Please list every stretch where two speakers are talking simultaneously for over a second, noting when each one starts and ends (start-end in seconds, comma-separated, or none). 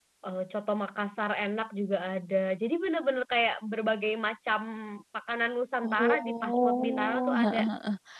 5.8-7.6